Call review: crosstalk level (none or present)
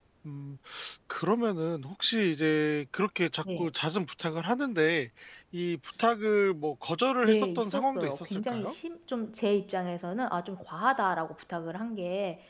present